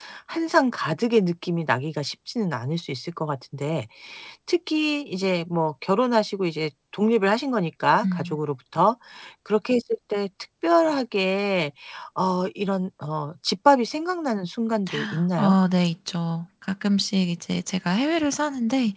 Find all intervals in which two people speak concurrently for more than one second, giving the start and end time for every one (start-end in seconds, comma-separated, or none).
none